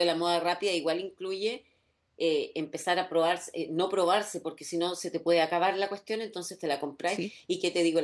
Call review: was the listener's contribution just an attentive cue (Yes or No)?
Yes